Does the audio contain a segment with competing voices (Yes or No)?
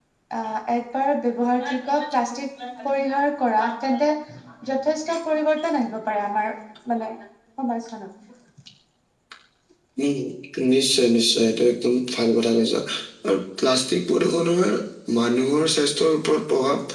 No